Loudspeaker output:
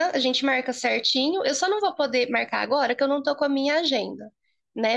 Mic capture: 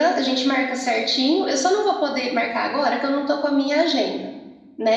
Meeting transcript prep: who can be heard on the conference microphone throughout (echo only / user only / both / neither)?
echo only